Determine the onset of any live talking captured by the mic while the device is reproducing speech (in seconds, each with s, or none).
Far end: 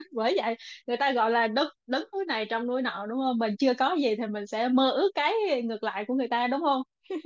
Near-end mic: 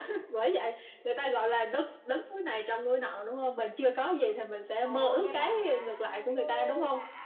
4.9 s